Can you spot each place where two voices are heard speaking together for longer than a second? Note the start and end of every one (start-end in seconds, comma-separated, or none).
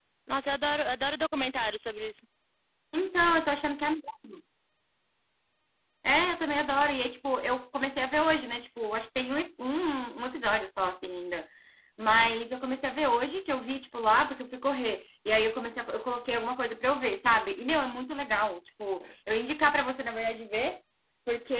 none